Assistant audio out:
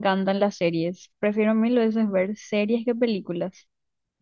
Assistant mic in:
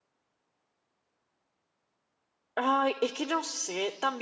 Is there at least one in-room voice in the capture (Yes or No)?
Yes